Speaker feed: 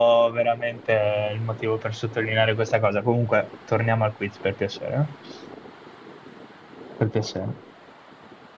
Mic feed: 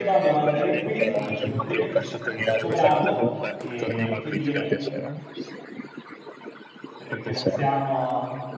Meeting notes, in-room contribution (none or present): present